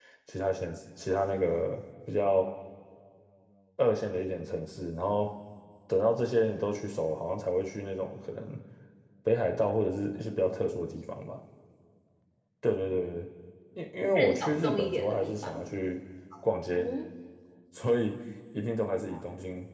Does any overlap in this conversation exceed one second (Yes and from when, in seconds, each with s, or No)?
Yes, from 14.2 s